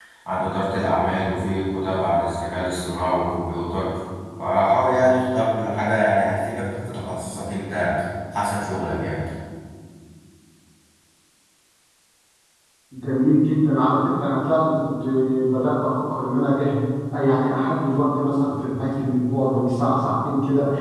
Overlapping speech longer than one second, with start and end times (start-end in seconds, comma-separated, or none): none